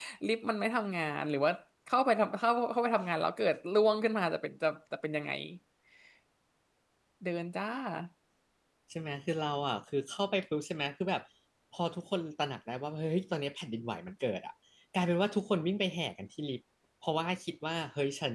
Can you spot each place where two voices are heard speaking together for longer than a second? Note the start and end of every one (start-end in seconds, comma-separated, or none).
none